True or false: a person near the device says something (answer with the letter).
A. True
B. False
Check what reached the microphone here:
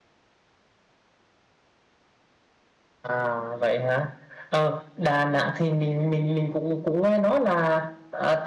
B